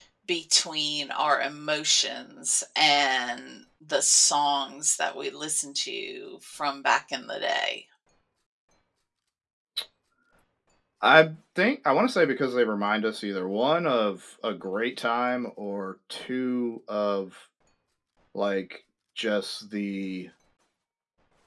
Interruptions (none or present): none